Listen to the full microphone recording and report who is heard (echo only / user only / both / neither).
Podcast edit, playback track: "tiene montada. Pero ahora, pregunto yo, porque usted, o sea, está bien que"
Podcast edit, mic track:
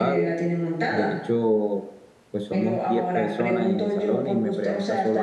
both